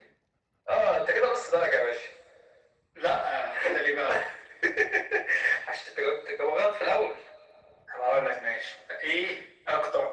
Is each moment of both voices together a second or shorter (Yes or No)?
Yes